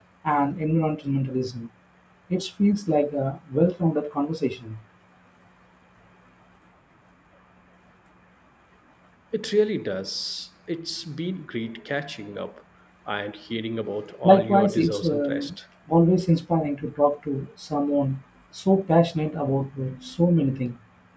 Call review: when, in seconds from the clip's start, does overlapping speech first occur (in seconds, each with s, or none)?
14.2 s